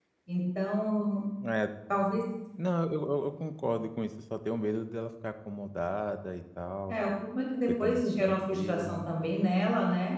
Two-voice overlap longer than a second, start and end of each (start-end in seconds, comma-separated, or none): 7.7-9.1